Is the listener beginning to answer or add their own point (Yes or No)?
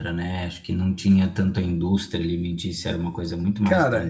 Yes